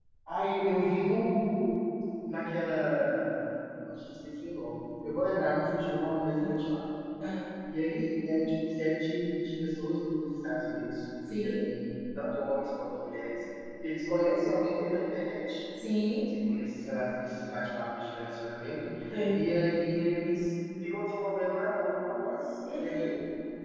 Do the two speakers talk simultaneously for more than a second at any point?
No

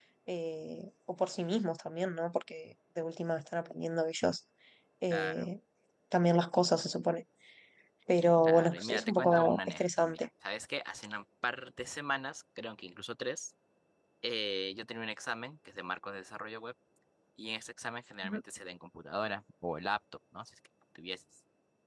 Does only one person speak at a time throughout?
No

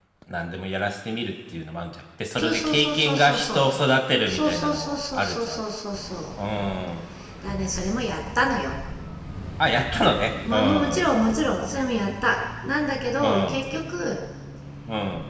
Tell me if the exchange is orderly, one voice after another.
No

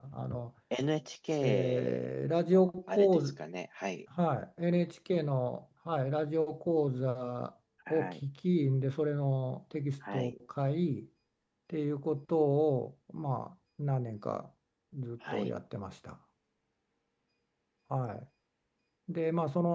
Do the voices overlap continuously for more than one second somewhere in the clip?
Yes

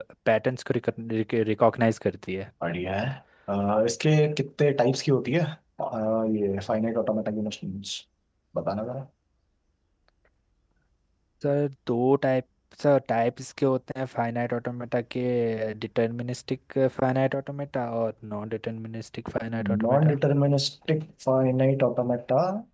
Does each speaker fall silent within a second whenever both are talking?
Yes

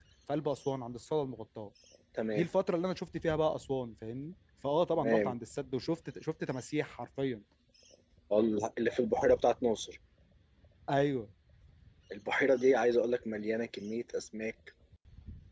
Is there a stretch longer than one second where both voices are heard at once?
No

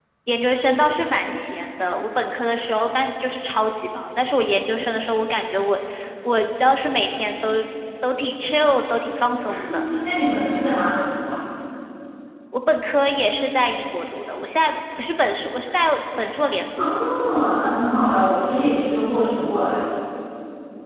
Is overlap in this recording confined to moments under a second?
Yes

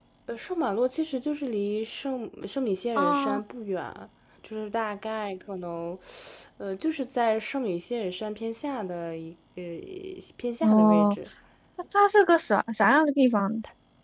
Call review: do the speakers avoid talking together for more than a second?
Yes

